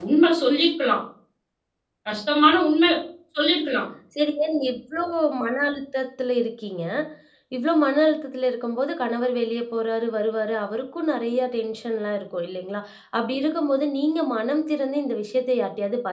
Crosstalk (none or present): none